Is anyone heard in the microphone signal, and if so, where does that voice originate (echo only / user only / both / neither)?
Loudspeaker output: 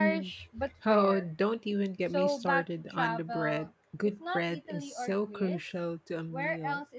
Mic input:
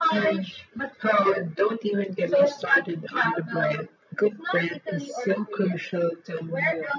echo only